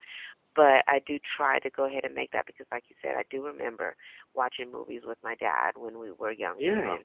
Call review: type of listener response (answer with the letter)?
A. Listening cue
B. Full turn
A